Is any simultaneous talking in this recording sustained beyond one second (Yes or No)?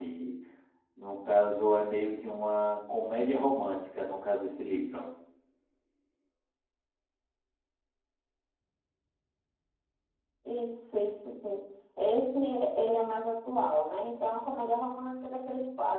No